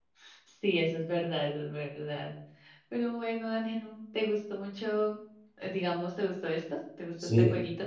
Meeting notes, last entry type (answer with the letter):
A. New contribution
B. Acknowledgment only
A